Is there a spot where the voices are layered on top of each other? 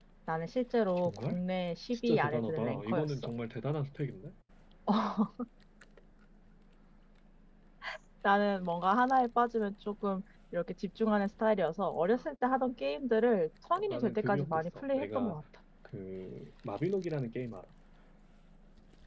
Yes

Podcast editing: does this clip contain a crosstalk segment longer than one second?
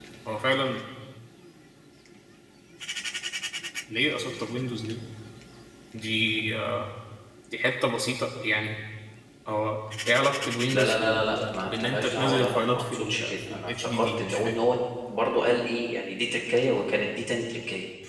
Yes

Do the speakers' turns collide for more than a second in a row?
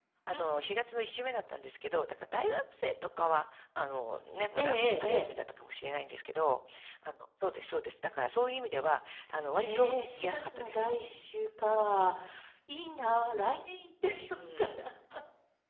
Yes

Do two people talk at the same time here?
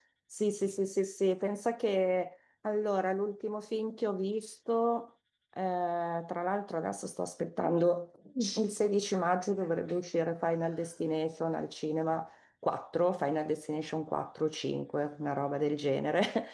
No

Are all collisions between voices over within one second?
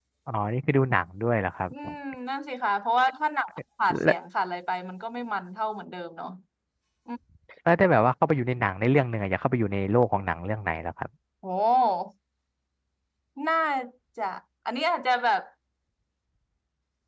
Yes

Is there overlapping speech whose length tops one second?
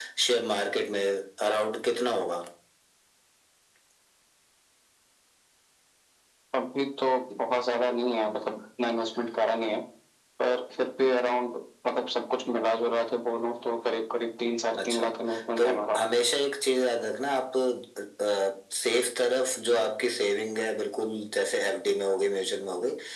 No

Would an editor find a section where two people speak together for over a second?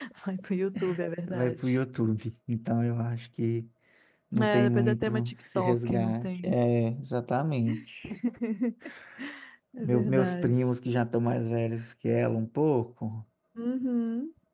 Yes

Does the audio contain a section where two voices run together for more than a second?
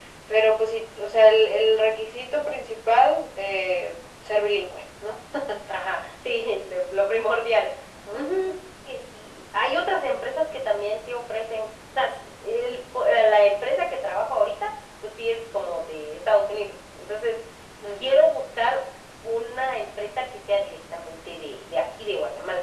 No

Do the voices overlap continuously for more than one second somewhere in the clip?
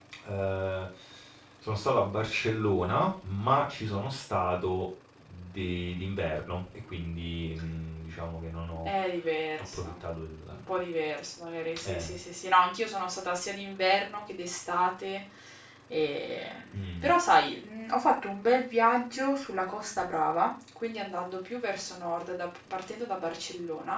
No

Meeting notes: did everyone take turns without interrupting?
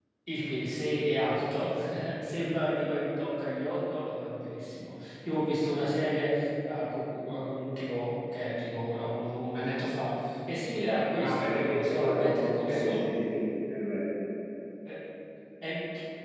No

